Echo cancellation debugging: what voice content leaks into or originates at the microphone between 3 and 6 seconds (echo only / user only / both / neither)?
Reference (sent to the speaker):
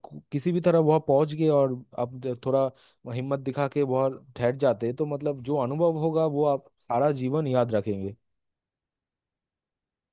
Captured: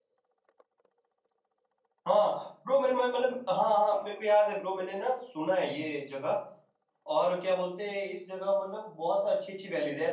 user only